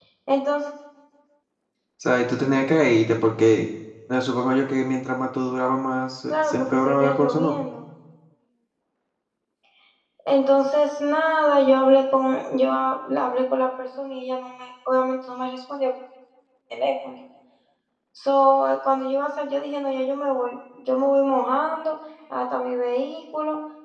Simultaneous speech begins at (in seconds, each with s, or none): 6.3 s